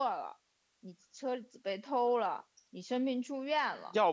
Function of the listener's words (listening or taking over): taking over